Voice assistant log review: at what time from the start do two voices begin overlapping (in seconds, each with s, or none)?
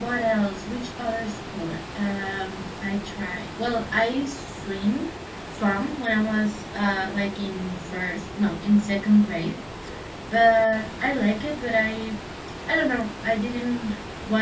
none